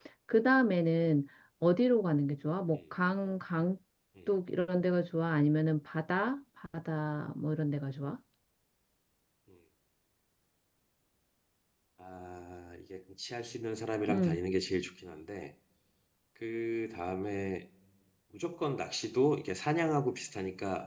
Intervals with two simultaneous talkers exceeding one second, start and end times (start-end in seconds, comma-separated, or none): none